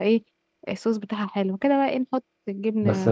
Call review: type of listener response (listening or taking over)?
taking over